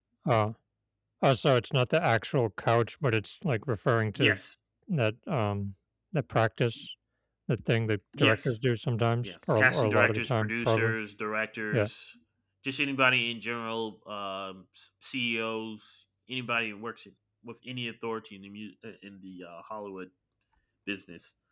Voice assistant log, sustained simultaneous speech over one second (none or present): present